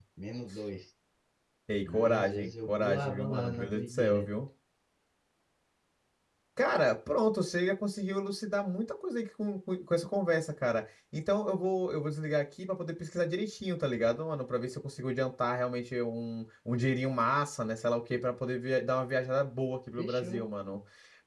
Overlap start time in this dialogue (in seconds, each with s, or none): 1.9 s